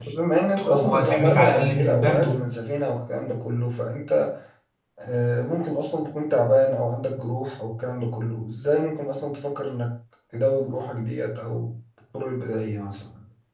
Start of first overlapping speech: 1 s

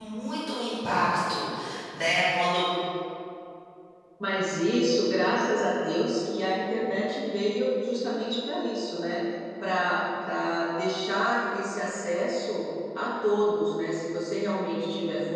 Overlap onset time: none

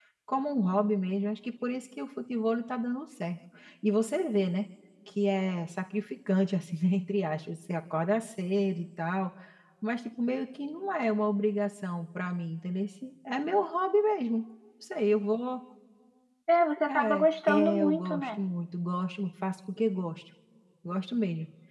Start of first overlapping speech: 17 s

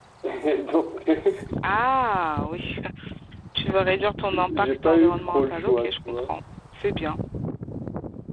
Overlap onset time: 5 s

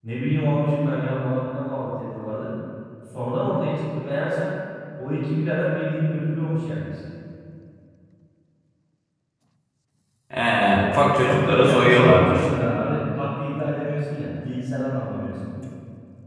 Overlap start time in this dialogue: 11 s

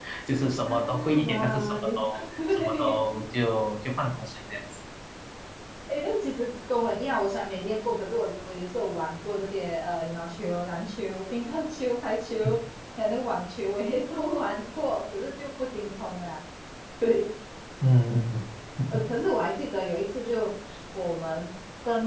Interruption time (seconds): 1 s

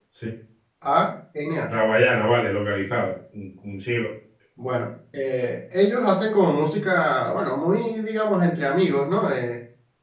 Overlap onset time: none

